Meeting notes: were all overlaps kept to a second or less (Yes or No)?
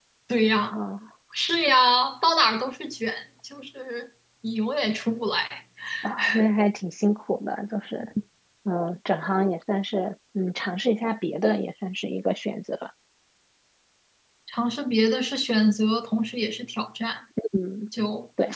Yes